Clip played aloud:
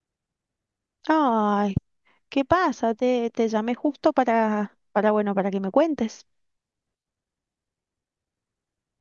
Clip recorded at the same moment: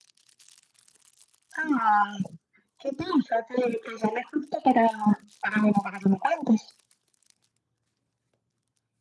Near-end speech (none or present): none